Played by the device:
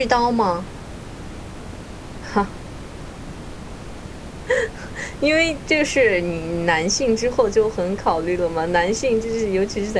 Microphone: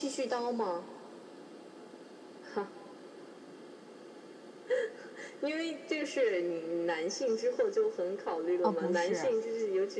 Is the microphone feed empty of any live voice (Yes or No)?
No